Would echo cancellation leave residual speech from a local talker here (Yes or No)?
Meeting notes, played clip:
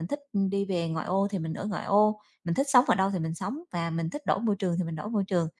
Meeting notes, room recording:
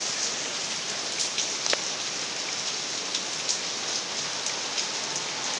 No